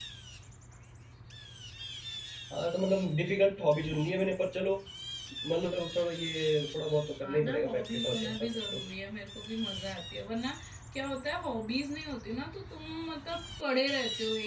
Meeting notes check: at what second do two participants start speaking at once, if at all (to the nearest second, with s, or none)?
7 s